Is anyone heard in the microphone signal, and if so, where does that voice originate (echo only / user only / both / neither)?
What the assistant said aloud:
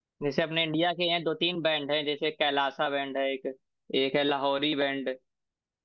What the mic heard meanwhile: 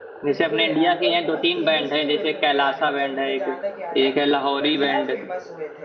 both